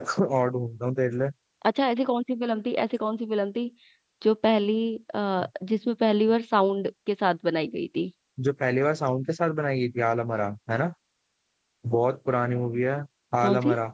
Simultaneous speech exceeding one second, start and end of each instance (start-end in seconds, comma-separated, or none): none